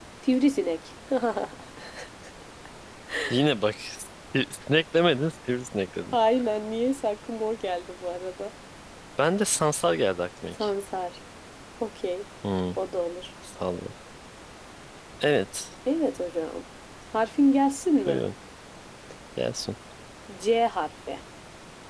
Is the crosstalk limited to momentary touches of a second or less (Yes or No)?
Yes